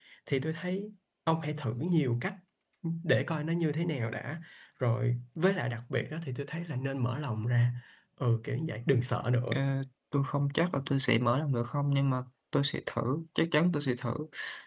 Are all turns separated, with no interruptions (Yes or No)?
Yes